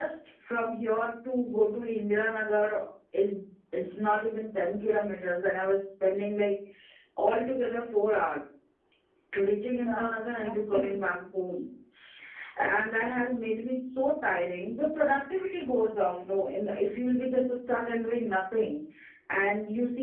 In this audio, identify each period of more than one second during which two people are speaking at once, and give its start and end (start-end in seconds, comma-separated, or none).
9.7-11.3